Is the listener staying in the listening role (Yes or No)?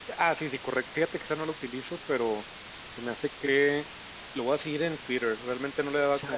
Yes